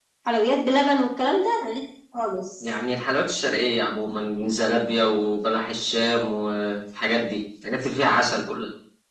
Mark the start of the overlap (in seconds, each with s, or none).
none